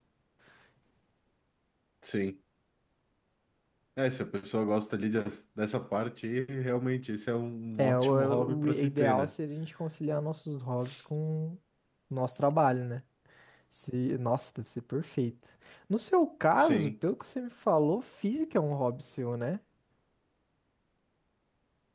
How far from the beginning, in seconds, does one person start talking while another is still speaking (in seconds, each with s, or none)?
7.8 s